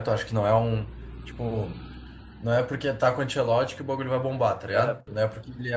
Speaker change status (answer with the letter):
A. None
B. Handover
A